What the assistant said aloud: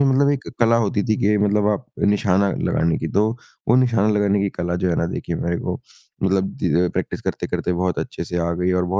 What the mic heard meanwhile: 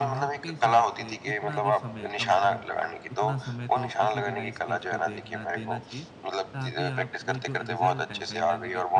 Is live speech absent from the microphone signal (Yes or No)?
No